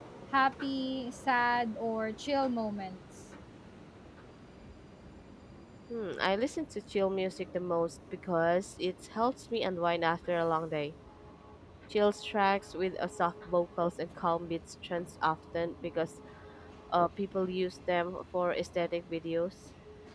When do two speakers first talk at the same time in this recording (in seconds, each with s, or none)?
none